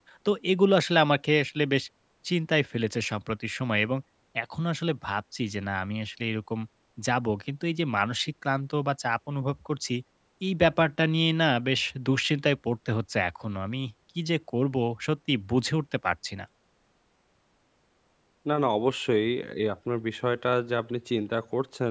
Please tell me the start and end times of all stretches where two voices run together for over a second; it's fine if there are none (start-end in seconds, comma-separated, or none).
none